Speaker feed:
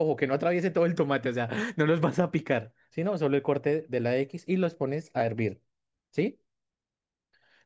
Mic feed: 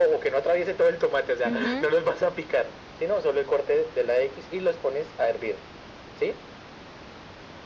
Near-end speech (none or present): present